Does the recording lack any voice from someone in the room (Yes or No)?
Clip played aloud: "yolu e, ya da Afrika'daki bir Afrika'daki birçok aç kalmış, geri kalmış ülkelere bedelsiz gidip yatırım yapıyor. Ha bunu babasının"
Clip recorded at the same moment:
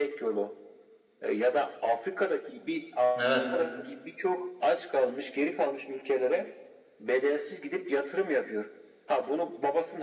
No